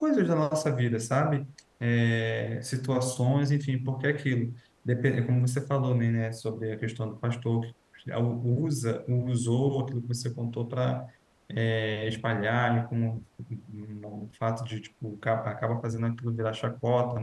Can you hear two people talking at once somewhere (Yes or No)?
No